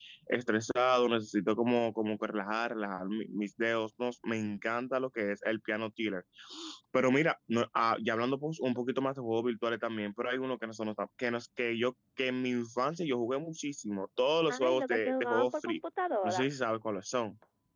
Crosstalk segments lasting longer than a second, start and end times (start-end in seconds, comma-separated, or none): 14.5-15.8